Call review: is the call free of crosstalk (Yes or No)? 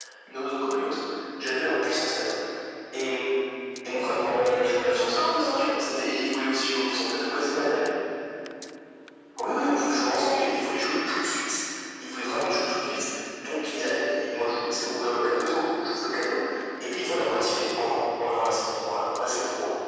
No